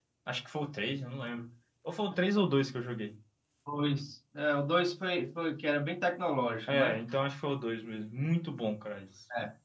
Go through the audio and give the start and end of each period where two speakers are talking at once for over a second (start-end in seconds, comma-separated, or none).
none